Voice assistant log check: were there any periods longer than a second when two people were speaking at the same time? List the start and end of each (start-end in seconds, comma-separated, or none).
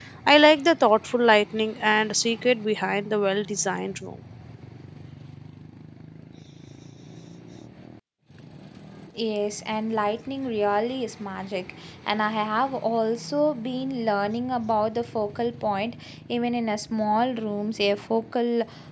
none